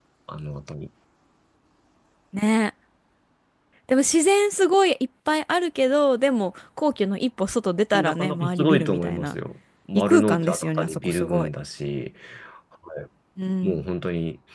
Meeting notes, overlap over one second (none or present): present